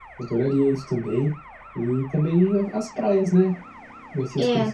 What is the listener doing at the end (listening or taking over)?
listening